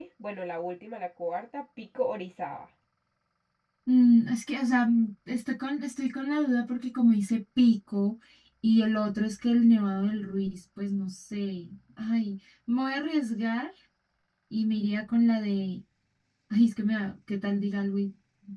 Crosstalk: none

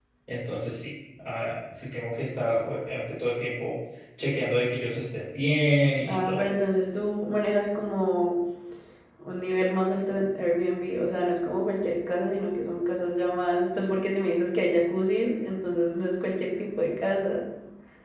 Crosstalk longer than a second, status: none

